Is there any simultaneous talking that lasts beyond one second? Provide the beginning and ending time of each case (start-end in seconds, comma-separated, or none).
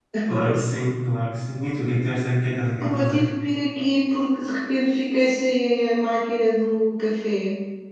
none